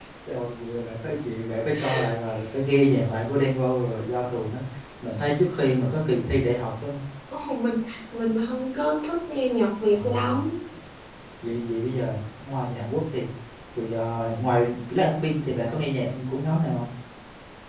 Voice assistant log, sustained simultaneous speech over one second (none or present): none